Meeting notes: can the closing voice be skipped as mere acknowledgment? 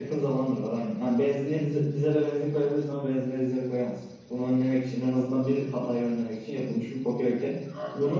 No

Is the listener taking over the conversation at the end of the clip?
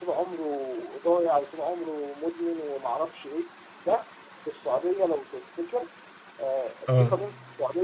No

